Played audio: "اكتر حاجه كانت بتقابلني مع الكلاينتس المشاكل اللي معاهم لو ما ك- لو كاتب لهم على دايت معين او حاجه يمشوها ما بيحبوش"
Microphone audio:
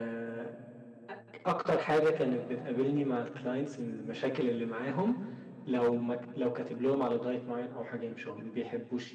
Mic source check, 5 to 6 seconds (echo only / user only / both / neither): echo only